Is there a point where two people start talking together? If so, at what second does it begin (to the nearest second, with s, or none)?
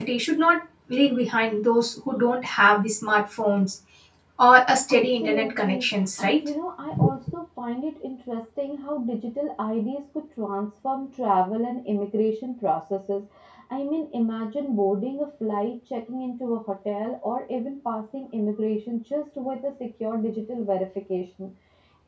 5 s